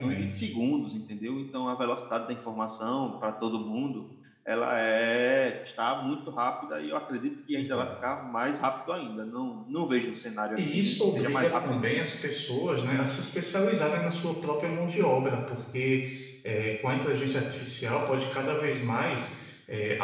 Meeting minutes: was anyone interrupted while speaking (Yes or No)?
Yes